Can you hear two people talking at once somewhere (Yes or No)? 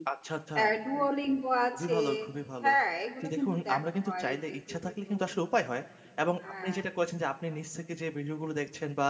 Yes